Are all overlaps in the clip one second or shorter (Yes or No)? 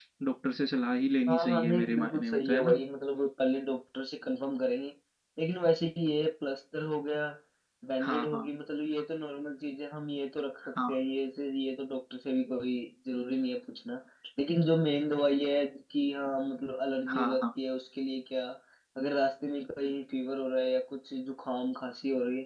No